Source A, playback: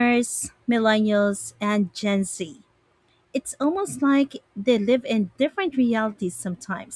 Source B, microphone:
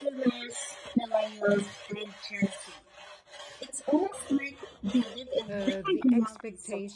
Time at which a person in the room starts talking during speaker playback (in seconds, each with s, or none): 5.5 s